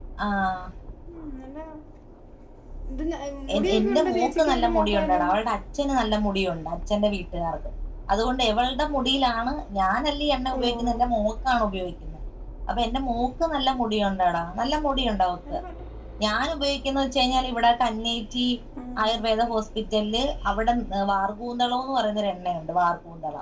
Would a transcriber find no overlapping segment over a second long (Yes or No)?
No